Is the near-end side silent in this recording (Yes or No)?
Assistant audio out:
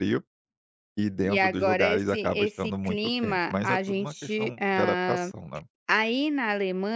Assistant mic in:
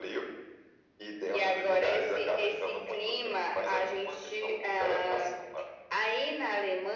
Yes